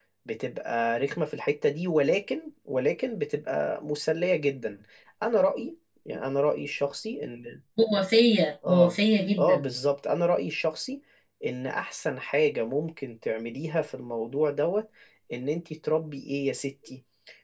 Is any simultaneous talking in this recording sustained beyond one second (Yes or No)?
No